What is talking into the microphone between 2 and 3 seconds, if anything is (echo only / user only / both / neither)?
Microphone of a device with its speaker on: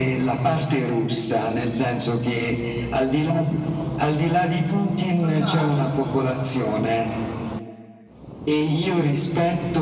echo only